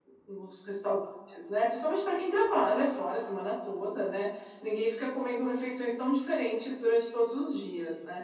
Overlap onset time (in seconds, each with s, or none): none